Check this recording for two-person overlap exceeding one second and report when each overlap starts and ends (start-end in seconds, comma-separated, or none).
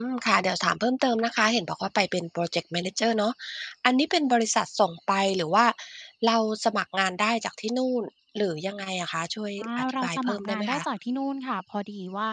9.6-10.8